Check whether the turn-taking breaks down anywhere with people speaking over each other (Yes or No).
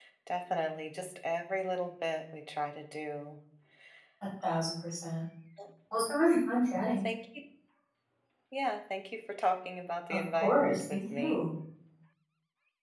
Yes